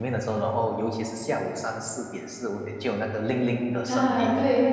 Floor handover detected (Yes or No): Yes